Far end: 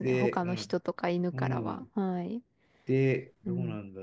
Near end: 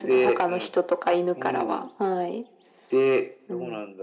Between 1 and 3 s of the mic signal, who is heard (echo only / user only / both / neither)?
echo only